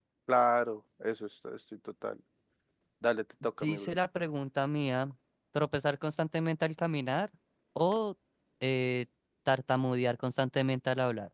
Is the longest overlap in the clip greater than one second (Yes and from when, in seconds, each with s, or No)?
No